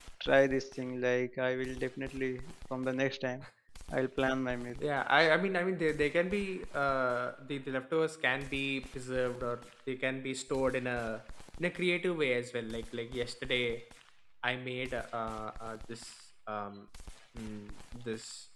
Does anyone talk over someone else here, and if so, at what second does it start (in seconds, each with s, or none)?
none